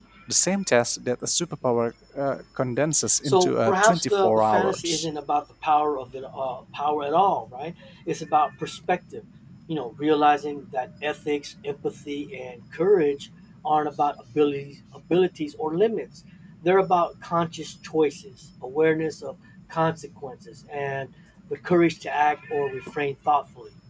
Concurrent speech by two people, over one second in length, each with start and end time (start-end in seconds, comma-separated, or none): 3.2-5.1